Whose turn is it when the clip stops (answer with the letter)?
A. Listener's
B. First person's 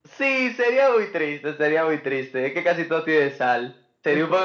B